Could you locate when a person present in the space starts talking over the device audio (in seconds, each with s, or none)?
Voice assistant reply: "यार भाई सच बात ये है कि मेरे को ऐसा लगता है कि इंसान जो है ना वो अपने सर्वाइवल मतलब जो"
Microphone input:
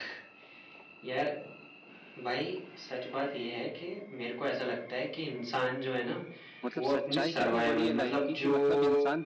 6.6 s